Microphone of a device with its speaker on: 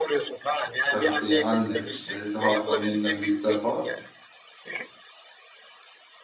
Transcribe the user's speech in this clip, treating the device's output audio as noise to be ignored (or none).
tarafı yani annem işte daha annemden büyükler falan.